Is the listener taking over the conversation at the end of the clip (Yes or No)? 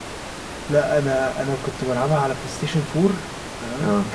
No